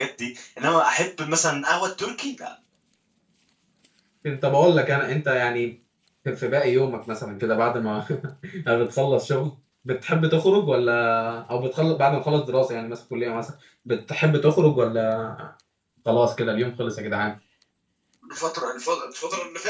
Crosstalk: none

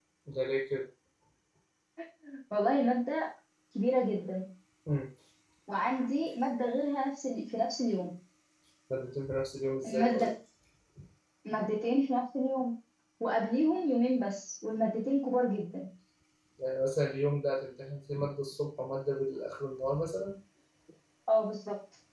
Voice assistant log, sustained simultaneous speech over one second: none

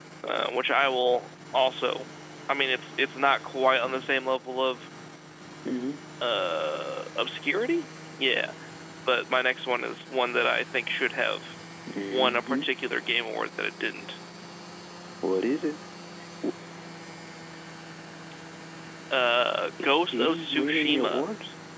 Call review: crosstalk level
present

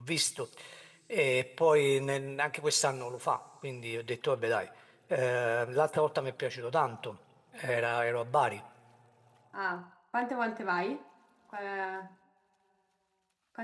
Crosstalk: none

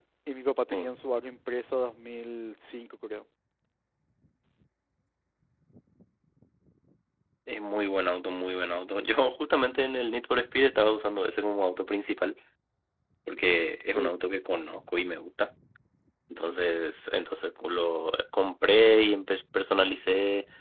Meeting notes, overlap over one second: none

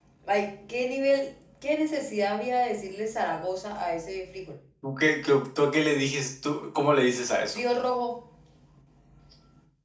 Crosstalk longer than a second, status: none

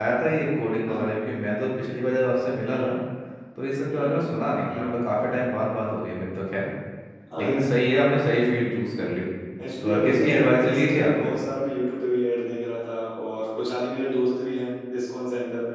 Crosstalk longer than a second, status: present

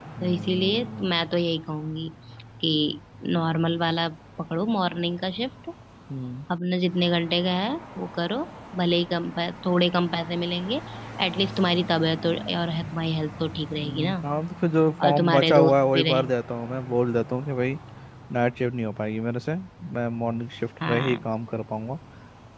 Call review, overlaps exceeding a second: present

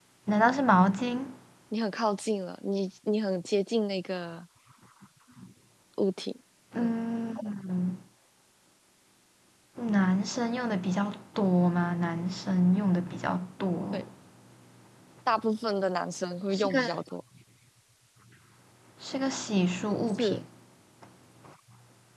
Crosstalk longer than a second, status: none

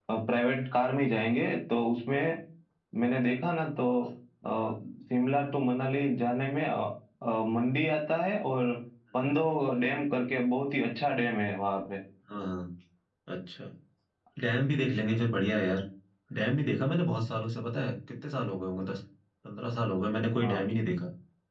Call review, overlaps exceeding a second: none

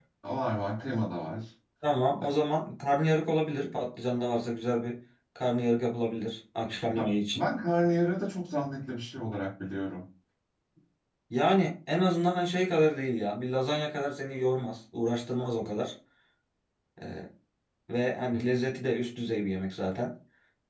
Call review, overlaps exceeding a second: none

